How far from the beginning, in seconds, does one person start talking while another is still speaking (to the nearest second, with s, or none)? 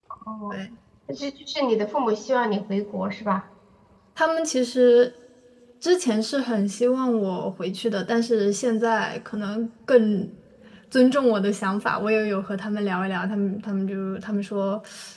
none